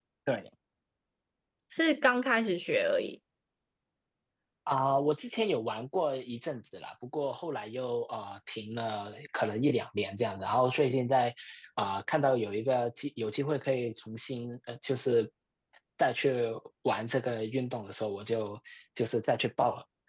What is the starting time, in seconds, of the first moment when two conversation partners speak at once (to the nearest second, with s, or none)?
none